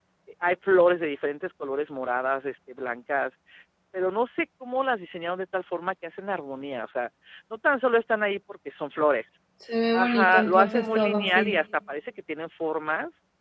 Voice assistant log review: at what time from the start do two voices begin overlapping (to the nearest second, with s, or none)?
10 s